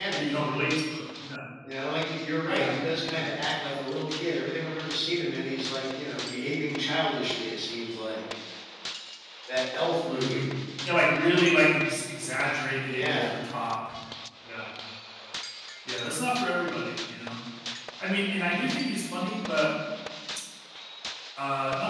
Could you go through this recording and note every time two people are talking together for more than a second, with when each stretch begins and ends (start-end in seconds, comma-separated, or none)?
none